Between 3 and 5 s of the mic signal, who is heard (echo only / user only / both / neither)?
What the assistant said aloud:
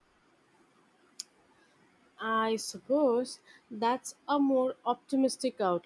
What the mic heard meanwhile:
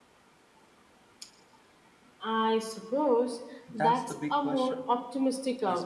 both